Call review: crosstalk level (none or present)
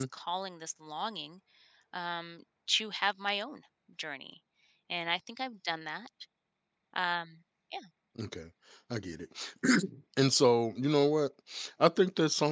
none